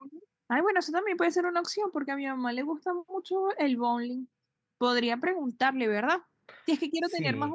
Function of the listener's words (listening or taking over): listening